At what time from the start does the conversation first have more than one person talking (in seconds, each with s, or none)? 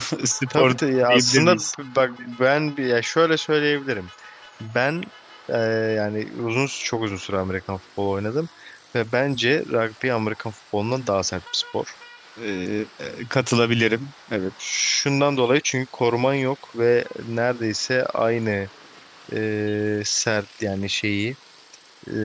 0.5 s